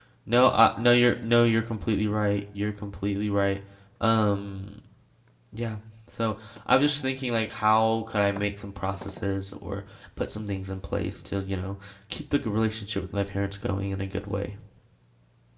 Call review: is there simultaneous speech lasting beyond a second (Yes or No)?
No